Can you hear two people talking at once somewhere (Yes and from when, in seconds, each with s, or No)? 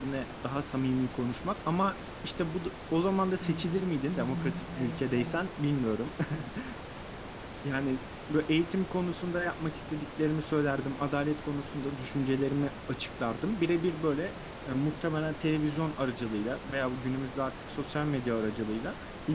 Yes, from 3.4 s